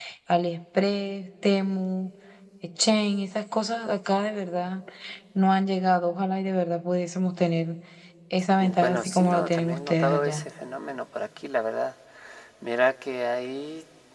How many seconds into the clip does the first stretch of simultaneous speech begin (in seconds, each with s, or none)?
8.8 s